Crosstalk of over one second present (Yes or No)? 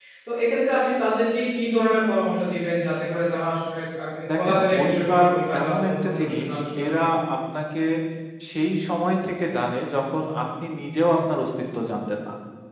Yes